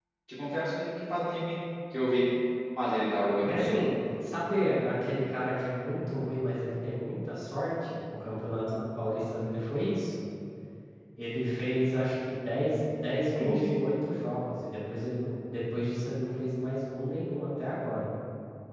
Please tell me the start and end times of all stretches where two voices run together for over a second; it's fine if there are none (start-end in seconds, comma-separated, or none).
none